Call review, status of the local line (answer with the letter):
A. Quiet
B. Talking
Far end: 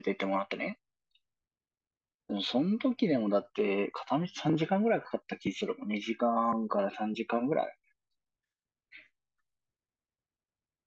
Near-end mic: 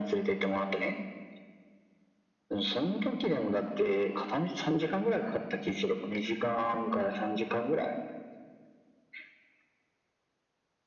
A